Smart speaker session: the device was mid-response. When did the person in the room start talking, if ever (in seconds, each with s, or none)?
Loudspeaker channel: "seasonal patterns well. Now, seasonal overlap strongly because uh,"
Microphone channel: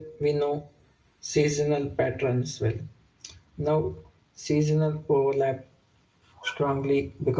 none